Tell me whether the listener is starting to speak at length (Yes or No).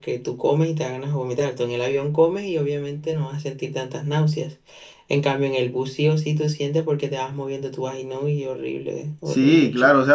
Yes